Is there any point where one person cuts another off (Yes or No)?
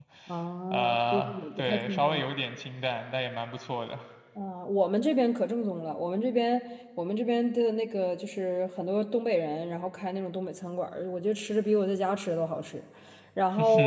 Yes